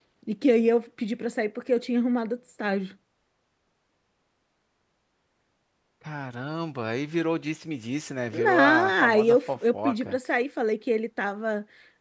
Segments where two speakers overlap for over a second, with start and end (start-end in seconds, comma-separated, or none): 8.3-10.2